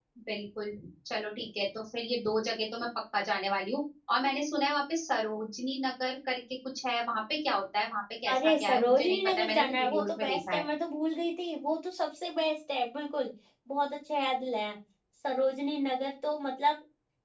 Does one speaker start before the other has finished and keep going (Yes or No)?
Yes